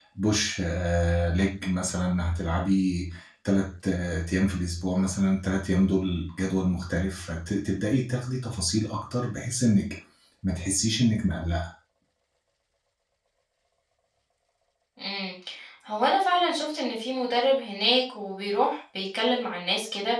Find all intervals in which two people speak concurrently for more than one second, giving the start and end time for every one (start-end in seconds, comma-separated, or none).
none